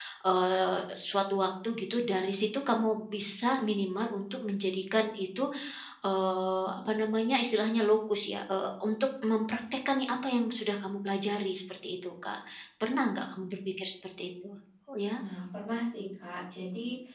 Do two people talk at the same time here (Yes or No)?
No